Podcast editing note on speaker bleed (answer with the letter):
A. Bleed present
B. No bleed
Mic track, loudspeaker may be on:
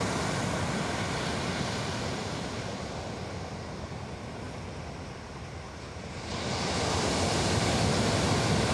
B